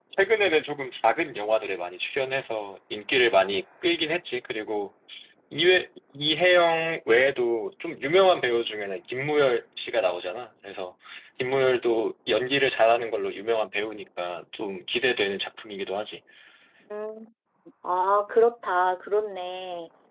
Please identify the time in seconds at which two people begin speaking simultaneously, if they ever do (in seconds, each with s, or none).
none